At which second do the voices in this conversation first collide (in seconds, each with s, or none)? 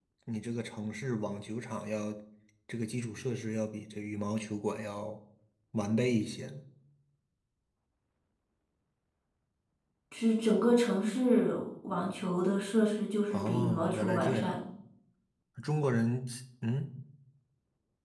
13.3 s